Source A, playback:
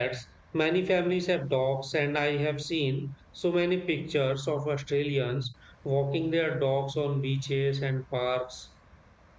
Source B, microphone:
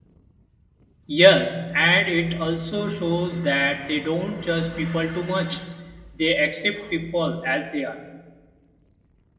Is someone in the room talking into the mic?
Yes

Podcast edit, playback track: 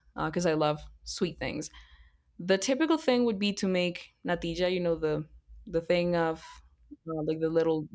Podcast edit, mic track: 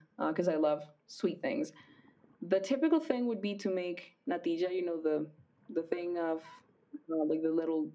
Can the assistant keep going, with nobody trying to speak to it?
Yes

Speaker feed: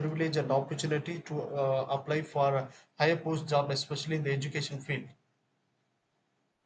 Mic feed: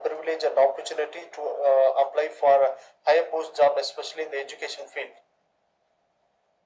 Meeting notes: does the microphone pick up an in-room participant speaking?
No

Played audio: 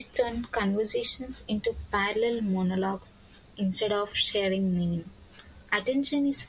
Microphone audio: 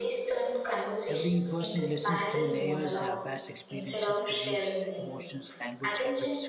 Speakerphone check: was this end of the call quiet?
No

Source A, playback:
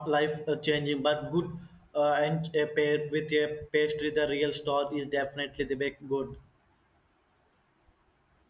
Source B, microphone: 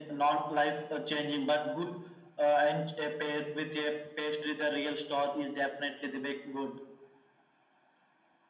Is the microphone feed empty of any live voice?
Yes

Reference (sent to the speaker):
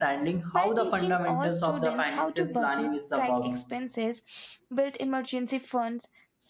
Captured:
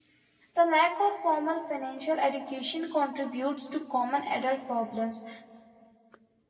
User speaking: Yes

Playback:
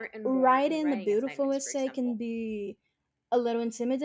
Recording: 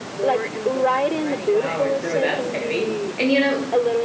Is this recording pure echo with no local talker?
No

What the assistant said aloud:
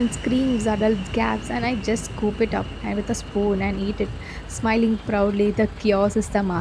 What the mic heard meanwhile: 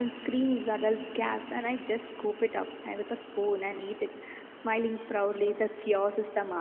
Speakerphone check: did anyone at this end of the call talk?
No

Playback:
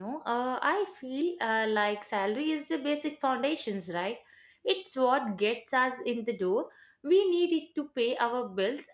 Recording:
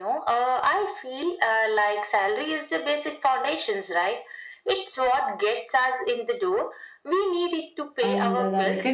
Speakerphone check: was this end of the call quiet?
No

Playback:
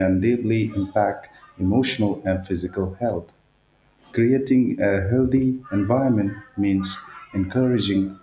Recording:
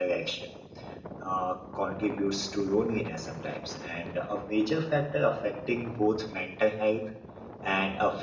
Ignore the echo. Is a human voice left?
Yes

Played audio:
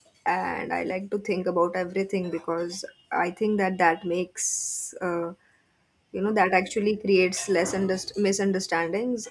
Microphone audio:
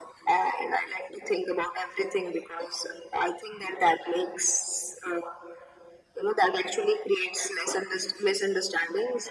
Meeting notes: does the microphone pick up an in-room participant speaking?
No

